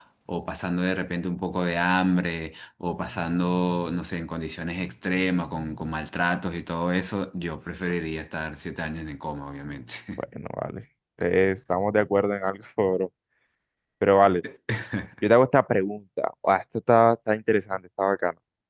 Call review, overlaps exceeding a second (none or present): none